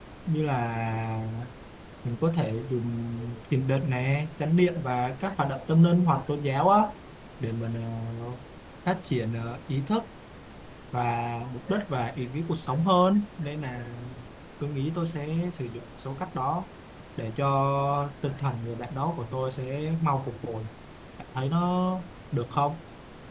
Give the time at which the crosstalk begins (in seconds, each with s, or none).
none